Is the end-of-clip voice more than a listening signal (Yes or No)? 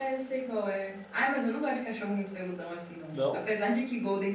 No